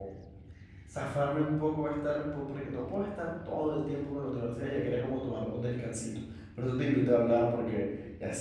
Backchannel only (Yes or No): Yes